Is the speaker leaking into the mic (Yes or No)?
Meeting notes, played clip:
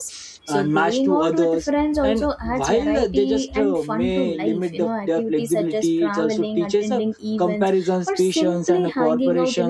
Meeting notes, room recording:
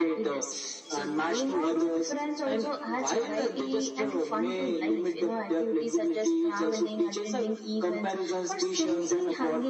Yes